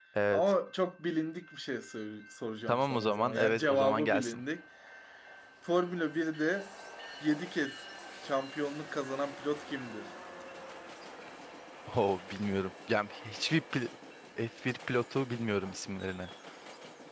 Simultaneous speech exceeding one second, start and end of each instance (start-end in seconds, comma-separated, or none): 2.7-4.4